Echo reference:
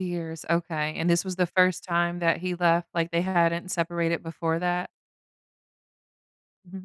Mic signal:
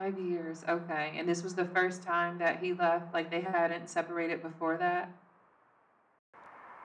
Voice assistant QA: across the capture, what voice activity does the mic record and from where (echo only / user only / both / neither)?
echo only